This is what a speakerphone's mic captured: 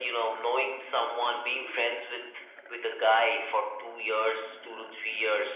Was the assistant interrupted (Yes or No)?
No